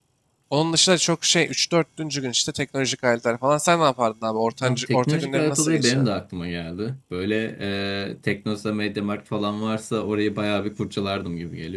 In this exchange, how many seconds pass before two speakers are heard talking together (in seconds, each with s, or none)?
4.6 s